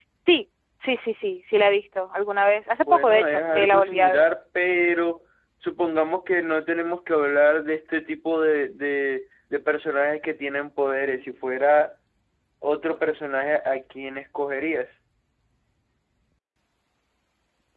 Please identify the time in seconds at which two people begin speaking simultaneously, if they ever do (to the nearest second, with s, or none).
3 s